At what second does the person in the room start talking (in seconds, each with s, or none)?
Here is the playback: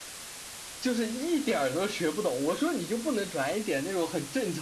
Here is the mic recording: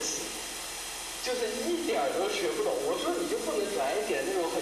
none